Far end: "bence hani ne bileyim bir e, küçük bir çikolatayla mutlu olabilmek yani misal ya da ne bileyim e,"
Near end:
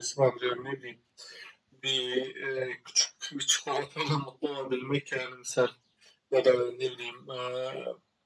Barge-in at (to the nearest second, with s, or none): none